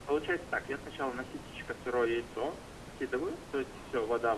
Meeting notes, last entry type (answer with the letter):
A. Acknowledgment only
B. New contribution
A